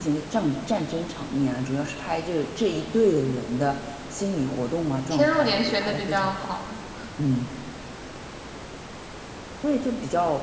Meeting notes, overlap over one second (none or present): present